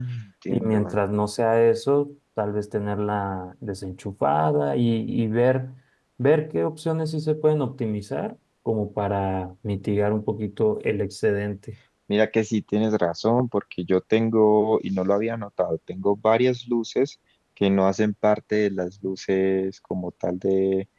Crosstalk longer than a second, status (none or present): none